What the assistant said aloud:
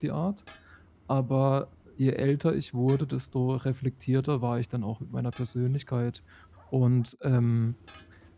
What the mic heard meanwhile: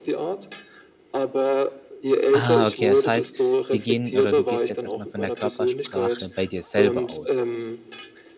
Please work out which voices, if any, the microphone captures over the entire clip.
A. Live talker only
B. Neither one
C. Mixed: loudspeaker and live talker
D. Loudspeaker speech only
C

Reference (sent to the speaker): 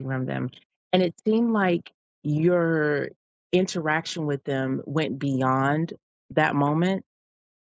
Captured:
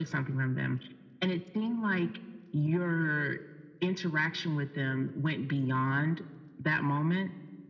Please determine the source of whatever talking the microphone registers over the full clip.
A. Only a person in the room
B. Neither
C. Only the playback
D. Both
C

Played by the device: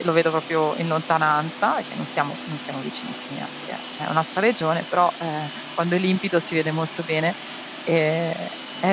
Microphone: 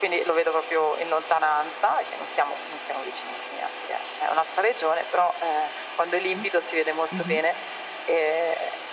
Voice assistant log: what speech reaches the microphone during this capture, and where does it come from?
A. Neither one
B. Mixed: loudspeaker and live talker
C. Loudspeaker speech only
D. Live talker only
B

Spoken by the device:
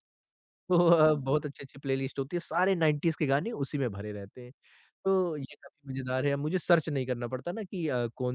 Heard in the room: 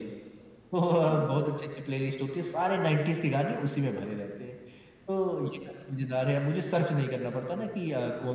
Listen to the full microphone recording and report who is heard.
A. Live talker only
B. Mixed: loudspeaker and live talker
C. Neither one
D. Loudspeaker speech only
D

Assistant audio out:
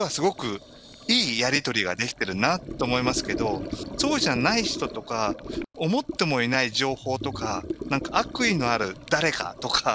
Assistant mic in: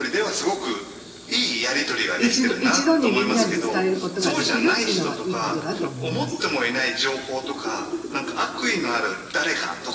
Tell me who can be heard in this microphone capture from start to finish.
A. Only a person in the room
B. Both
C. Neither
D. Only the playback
B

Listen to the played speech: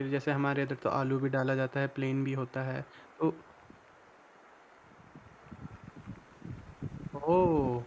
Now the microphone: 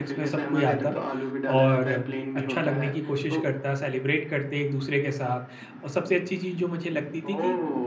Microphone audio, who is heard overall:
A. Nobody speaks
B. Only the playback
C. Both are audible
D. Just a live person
C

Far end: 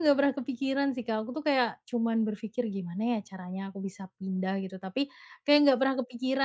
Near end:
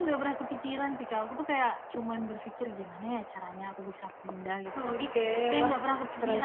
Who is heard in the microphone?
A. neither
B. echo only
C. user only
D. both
D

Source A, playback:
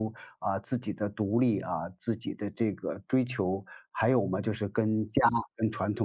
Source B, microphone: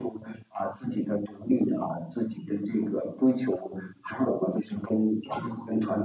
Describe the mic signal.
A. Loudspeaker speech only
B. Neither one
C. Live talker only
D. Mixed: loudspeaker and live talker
A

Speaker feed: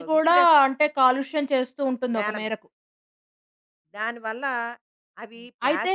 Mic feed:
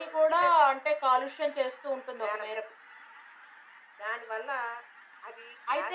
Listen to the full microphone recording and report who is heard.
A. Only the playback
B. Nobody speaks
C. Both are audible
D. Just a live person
A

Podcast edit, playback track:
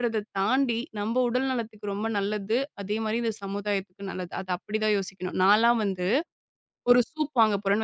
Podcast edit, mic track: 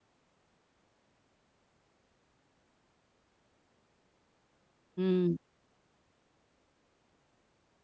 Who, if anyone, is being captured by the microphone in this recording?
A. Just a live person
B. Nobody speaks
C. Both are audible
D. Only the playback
A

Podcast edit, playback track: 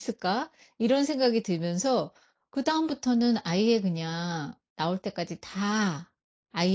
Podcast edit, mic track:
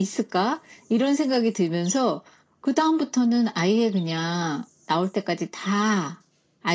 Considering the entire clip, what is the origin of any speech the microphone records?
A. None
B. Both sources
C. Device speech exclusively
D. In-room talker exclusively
C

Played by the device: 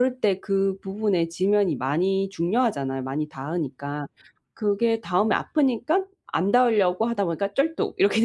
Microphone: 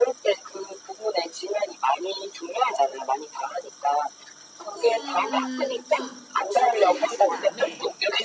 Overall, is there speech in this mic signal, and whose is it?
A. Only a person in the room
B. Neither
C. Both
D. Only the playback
C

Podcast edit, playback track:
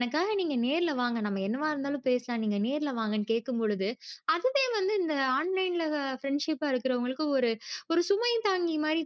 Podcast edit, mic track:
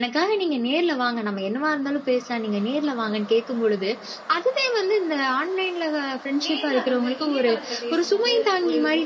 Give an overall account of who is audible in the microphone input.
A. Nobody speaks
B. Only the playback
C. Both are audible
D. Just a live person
C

